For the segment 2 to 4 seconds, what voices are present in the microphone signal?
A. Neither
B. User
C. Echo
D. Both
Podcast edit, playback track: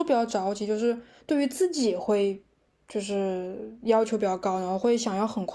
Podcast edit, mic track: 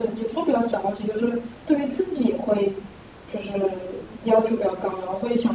C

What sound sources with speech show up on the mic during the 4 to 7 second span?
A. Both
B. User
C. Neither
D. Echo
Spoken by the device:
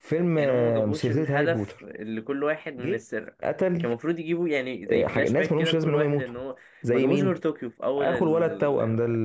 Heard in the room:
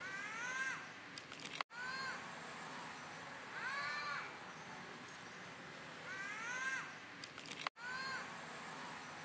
C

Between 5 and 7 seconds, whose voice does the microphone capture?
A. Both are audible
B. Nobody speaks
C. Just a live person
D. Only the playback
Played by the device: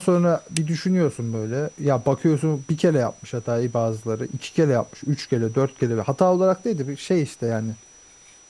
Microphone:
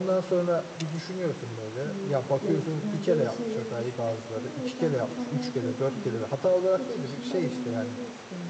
A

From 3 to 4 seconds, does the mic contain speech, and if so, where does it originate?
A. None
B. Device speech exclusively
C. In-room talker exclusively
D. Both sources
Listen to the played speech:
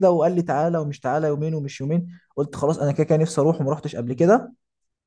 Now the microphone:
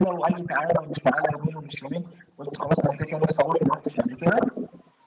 B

